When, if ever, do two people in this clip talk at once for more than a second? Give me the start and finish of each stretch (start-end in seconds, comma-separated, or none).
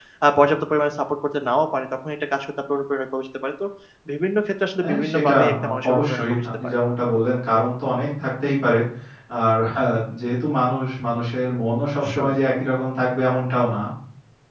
4.8-6.8